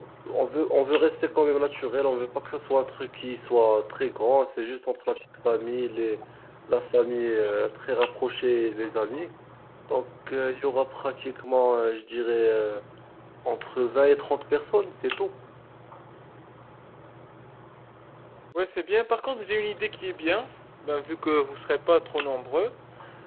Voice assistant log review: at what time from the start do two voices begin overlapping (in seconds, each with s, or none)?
none